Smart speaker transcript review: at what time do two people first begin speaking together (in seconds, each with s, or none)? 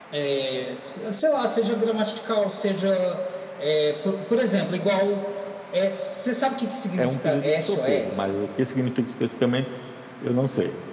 7.0 s